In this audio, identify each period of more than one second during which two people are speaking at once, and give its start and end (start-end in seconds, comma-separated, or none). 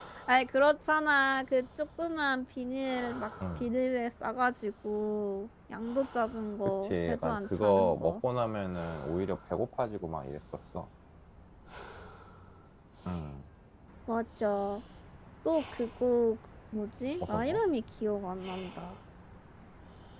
6.8-8.2